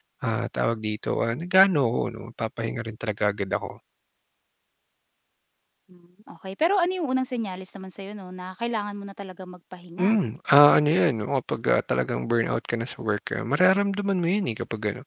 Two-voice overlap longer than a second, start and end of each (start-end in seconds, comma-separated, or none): none